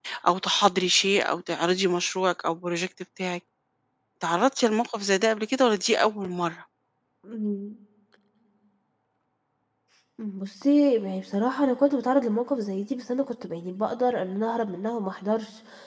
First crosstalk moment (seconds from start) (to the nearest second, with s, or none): none